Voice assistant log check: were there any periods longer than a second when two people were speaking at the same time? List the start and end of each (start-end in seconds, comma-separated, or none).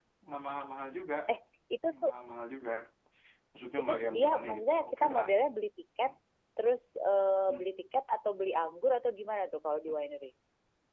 3.8-5.3